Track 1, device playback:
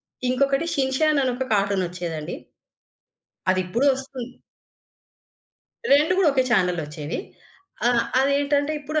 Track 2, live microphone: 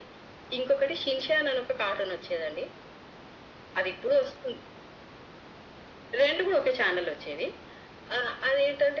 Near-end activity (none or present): none